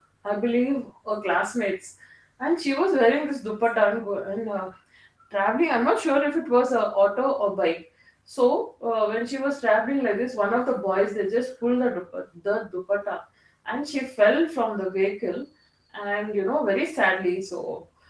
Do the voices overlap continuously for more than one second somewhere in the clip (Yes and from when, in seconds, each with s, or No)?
No